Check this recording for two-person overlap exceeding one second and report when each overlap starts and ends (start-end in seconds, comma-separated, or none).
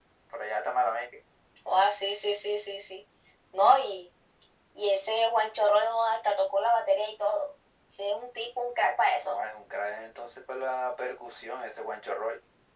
none